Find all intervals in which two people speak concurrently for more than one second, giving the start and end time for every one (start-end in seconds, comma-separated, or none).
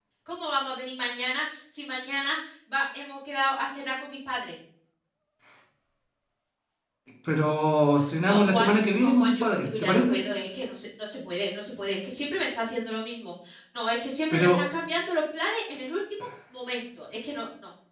8.3-10.2